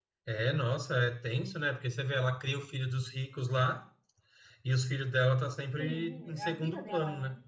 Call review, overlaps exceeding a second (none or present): present